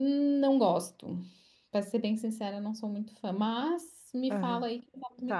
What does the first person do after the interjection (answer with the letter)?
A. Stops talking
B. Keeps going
A